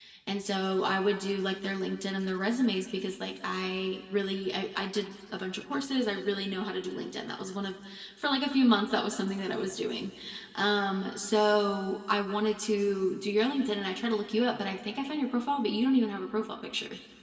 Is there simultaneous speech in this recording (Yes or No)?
No